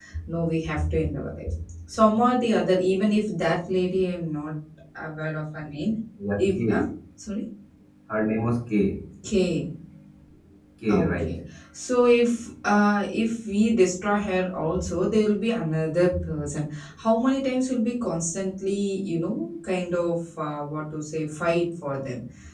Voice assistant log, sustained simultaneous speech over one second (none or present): none